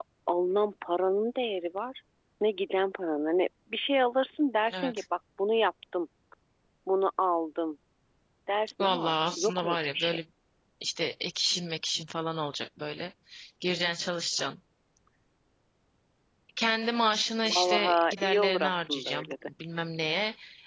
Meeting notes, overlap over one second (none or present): present